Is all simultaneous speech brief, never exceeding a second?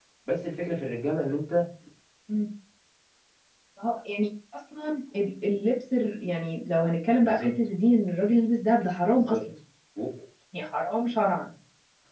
Yes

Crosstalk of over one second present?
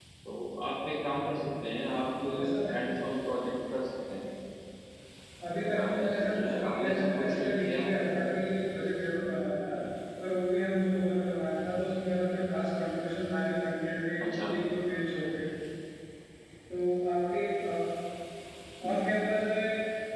Yes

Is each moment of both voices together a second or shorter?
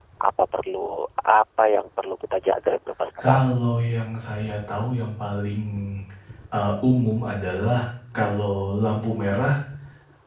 Yes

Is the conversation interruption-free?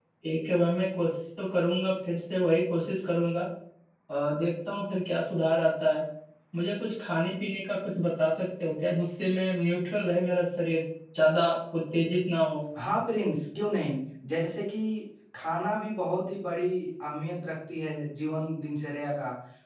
Yes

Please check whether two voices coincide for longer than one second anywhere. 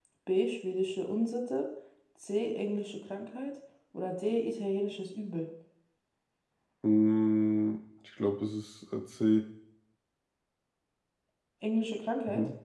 No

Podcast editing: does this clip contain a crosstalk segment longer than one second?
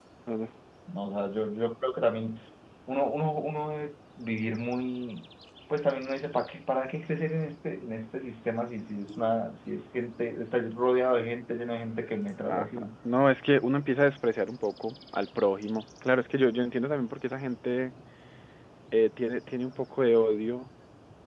No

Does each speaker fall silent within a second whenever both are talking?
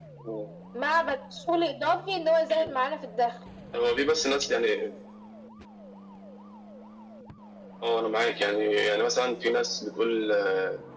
Yes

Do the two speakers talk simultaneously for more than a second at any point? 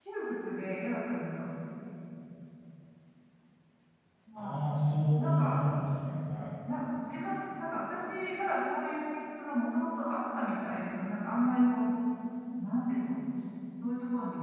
No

